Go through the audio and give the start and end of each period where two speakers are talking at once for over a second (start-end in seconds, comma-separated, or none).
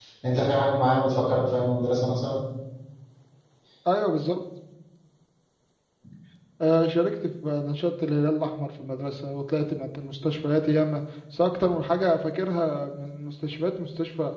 none